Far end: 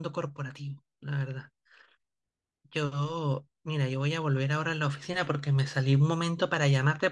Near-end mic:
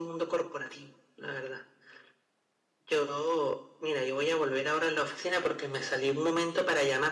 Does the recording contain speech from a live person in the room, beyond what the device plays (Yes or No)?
No